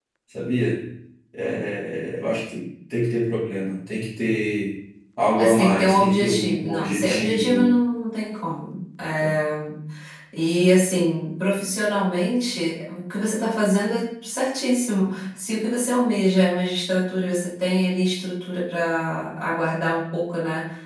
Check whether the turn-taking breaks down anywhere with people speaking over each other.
Yes, from 5.4 s

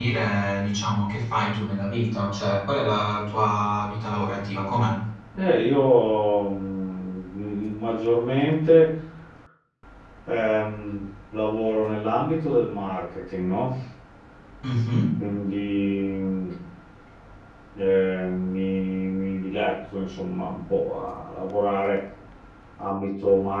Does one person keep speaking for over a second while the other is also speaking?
No

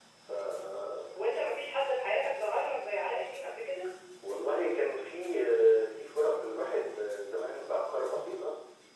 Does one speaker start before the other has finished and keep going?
No

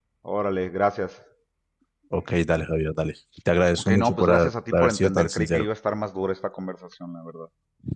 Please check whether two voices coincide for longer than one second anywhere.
Yes, from 3.8 s

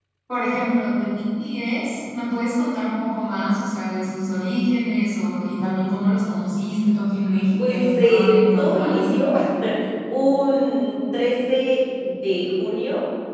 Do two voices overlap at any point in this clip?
Yes, from 7.6 s

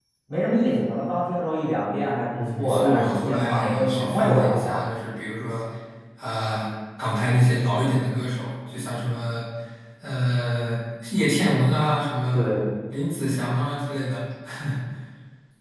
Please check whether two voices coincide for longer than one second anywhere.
Yes, from 2.3 s

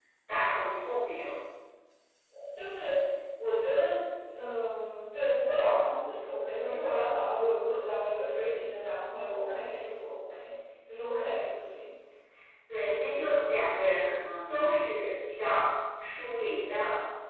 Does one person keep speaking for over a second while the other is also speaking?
No

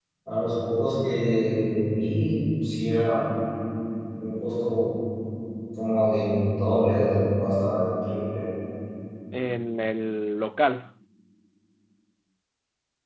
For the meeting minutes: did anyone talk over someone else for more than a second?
No

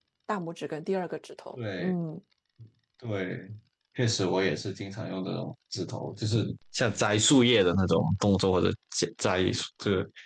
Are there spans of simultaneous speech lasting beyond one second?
No

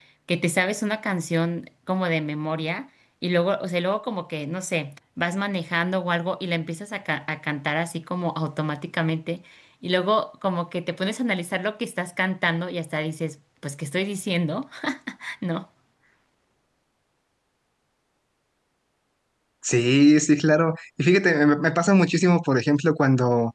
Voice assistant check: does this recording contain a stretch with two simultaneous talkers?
No

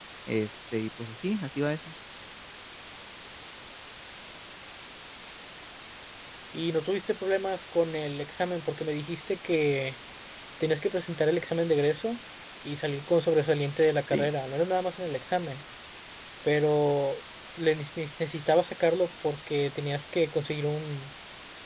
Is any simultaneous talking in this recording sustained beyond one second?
No

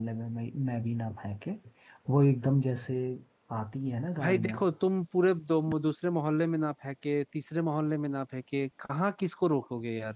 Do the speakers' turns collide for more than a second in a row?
No

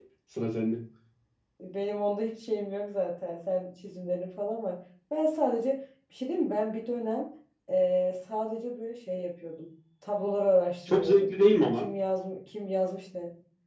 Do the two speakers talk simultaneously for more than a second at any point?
No

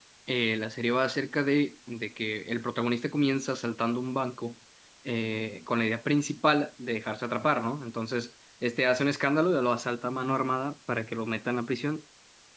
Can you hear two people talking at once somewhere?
No

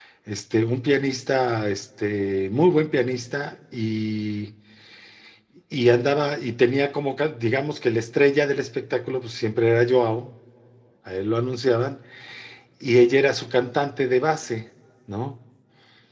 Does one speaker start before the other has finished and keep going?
No

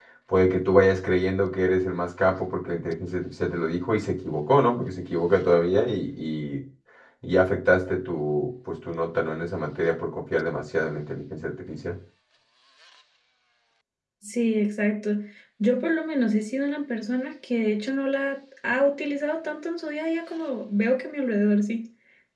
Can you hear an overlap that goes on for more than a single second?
No

